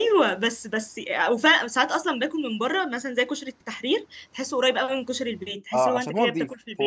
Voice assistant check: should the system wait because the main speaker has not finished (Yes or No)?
No